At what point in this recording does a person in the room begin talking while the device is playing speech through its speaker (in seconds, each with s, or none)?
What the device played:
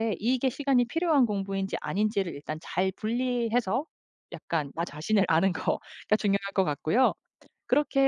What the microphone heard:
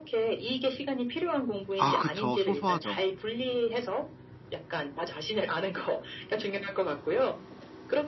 1.8 s